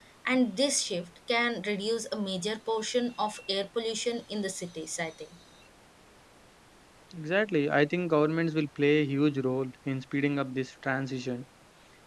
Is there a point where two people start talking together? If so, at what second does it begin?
none

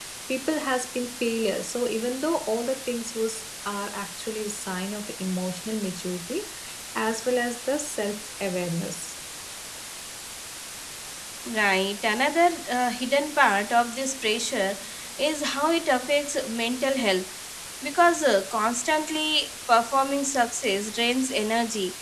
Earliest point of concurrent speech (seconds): none

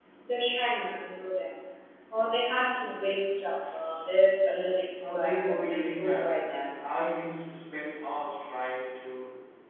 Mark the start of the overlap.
5.0 s

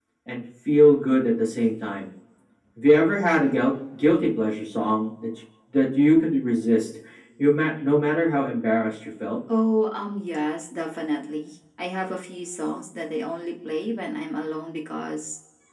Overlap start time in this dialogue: none

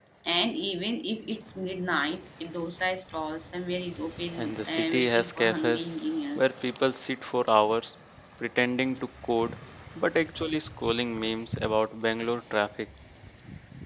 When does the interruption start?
4.4 s

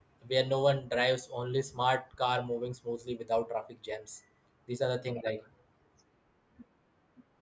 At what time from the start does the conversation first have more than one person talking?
none

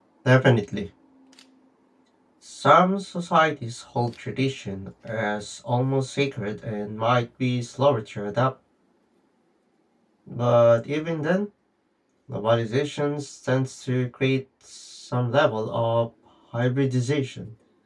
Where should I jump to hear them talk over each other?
none

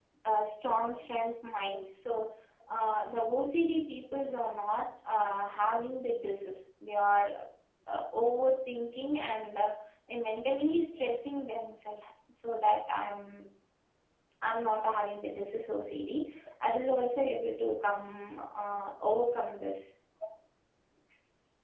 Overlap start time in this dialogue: none

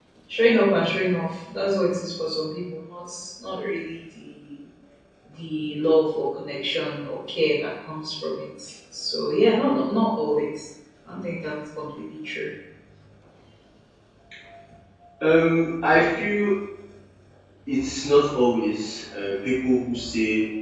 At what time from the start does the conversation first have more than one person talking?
none

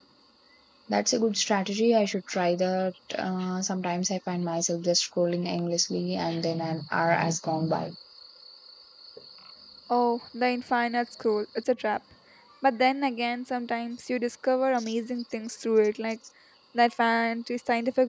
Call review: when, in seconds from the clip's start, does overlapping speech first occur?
none

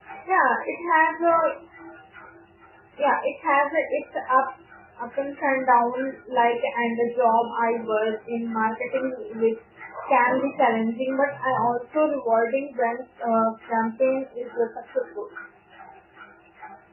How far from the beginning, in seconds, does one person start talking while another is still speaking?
none

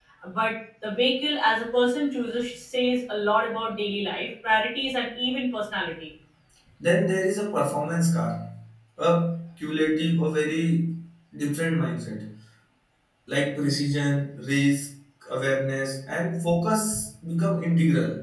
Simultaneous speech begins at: none

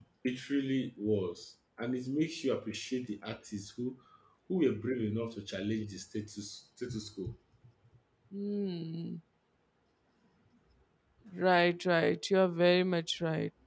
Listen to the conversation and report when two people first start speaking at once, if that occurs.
none

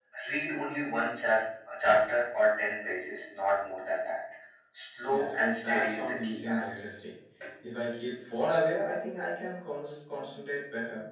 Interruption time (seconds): 5.0 s

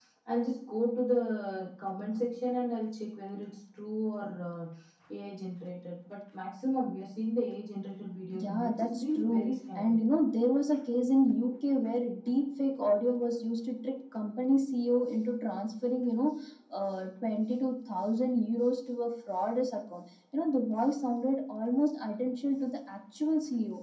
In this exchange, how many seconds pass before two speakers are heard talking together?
8.3 s

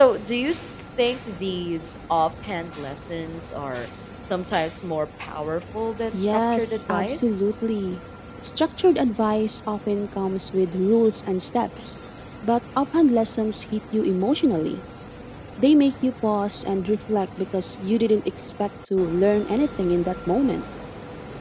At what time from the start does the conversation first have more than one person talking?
6.1 s

